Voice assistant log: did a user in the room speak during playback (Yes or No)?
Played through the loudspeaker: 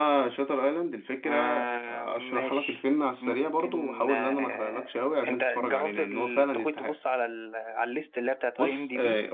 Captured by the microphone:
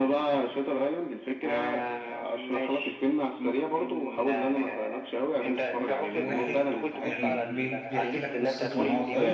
Yes